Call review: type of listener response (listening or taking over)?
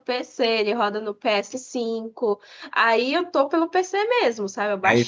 taking over